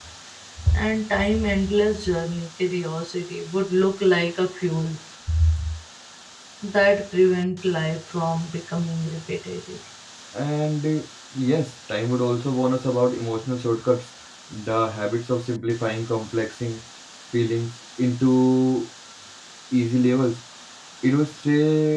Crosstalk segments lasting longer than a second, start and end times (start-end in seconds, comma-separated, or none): none